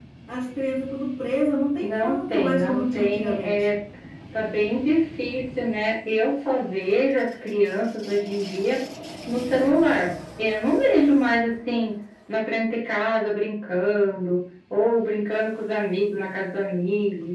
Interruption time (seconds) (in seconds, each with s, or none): 1.8 s